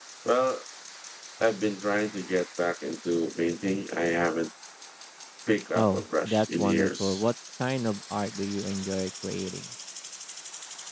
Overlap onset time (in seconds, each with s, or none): 5.8 s